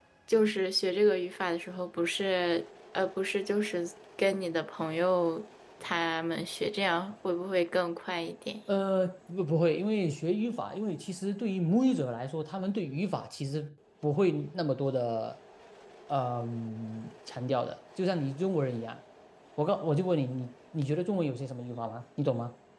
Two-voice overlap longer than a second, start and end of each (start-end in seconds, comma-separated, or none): none